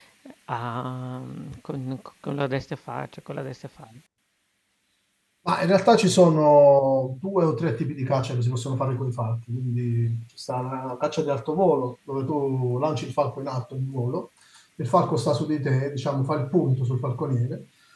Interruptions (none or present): none